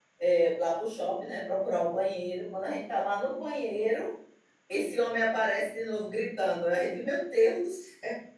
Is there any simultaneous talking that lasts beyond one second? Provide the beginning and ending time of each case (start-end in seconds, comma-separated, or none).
none